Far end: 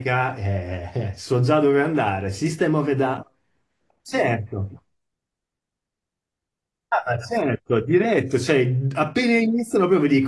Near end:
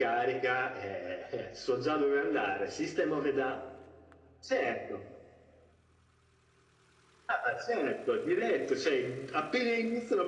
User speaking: No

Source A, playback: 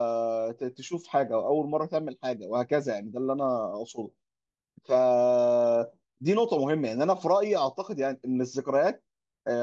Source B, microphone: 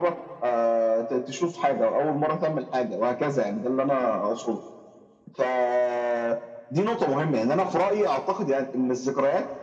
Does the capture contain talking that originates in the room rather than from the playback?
No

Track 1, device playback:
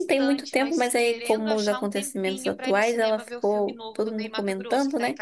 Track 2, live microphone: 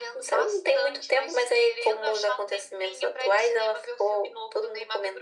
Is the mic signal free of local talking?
Yes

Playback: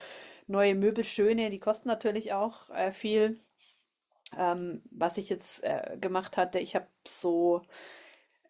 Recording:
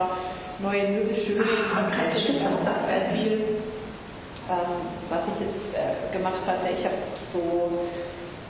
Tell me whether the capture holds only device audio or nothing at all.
No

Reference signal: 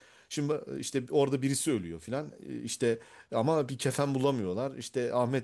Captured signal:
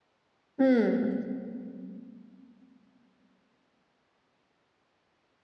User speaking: Yes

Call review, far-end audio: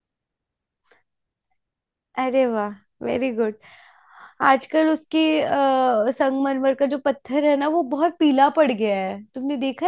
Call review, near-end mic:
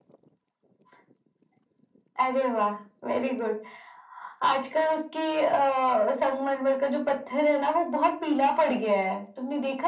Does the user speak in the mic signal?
No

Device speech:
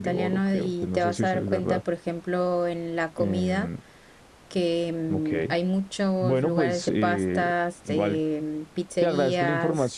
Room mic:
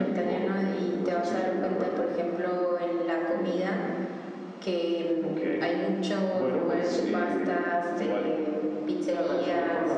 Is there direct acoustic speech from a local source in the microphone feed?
No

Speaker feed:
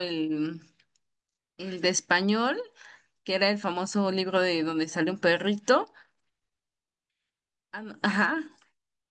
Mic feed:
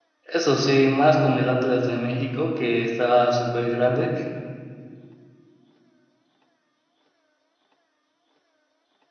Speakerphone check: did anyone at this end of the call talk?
Yes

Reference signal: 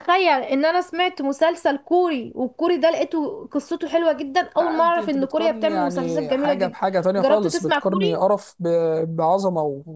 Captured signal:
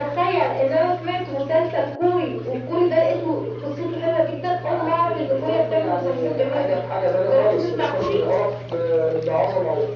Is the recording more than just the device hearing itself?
No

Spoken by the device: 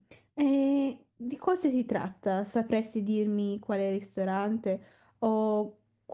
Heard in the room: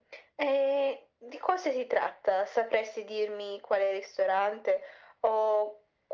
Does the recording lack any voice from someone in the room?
Yes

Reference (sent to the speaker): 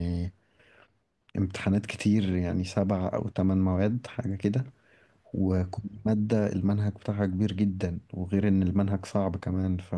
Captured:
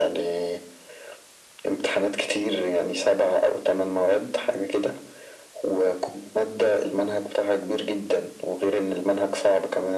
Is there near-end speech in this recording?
No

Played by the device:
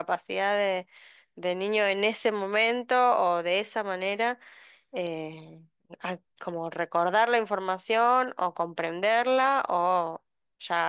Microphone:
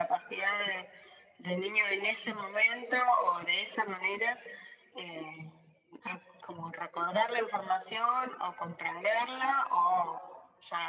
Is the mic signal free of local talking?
Yes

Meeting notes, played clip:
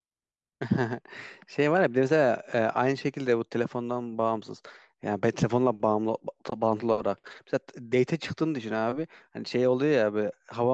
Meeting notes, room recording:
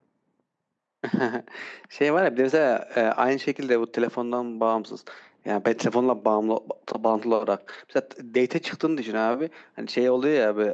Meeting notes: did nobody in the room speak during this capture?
Yes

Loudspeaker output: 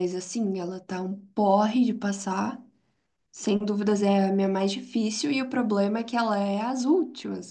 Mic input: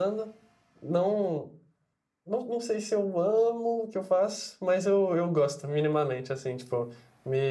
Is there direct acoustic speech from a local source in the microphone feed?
Yes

